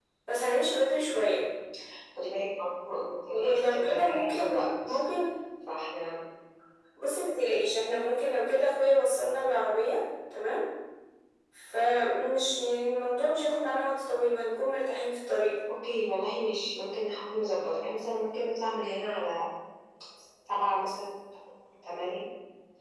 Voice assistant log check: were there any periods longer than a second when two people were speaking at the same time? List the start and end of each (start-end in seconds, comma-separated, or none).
3.3-4.9